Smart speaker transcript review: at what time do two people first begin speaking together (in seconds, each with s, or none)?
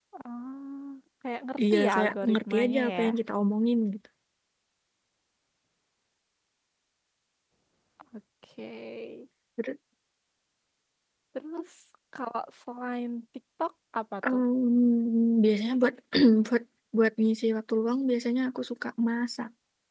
1.6 s